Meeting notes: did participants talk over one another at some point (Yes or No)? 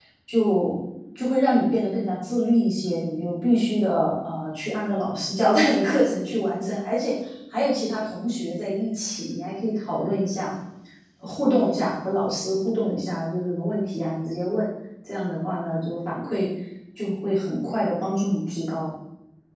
No